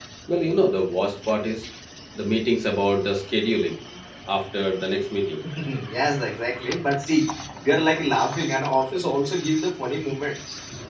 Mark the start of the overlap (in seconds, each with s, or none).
none